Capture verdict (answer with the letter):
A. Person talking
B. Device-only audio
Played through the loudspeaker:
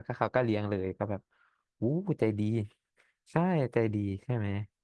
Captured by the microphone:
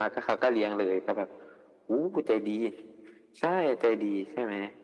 B